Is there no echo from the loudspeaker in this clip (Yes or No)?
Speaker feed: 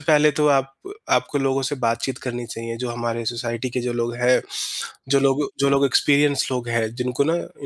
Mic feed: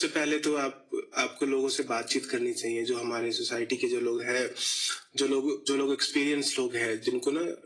No